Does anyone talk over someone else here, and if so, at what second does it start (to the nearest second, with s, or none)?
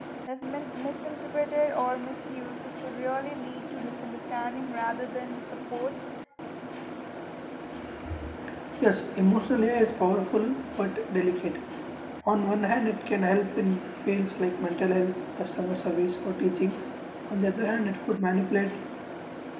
none